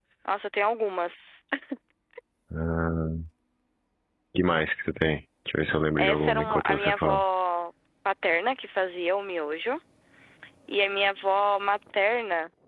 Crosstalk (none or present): present